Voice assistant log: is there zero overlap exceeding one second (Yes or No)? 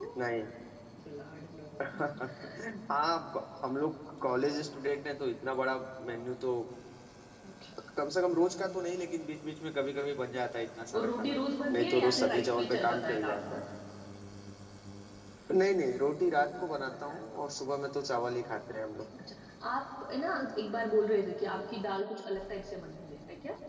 No